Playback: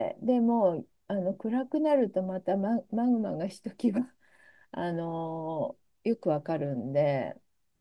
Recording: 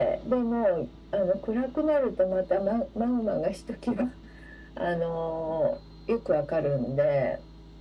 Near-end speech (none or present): none